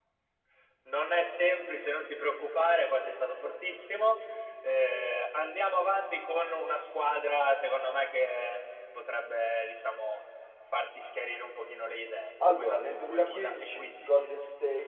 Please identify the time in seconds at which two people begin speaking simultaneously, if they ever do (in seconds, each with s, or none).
12.4 s